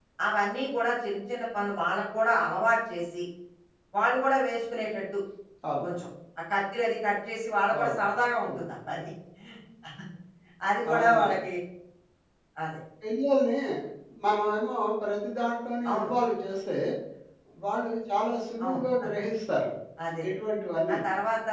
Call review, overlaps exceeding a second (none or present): none